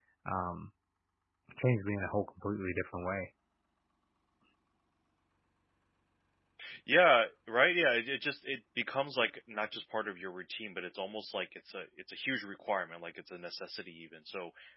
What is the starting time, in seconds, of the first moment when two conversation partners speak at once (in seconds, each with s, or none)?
none